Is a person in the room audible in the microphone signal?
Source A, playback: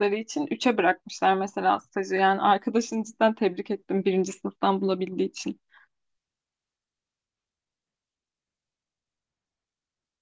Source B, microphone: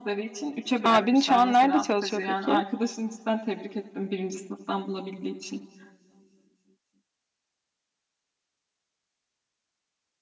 Yes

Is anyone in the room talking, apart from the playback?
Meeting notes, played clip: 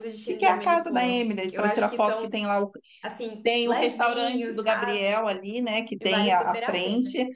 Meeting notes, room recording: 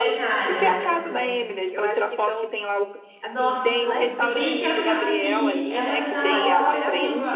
Yes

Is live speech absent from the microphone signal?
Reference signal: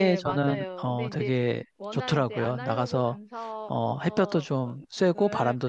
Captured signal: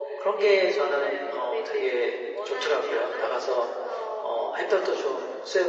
Yes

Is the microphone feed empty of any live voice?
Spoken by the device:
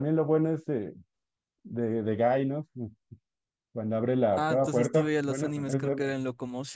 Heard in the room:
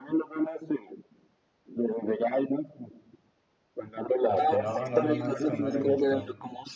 No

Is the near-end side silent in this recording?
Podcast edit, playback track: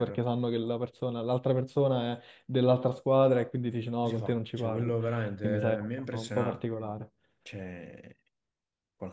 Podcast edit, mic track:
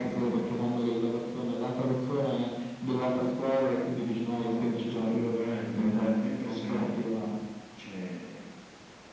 Yes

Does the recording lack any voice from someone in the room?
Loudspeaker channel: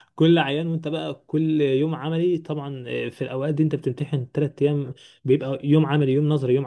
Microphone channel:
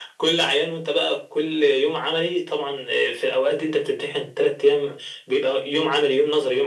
Yes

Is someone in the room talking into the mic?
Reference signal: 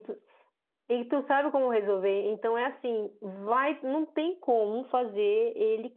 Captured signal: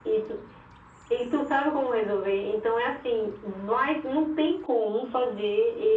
No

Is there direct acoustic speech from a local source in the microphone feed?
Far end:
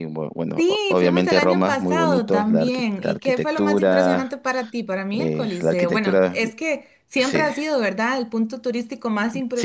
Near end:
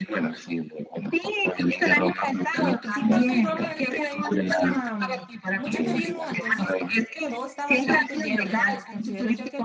Yes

